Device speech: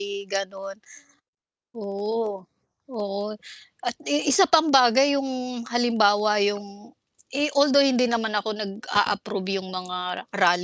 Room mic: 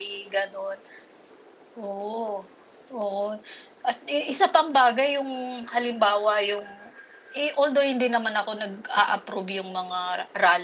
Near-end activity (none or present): none